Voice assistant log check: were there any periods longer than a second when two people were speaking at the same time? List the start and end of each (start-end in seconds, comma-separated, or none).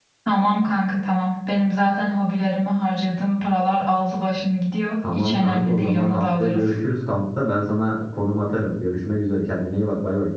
5.2-6.7